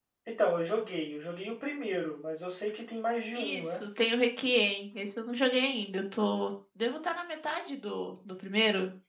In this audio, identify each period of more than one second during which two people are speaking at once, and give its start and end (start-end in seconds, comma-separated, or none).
none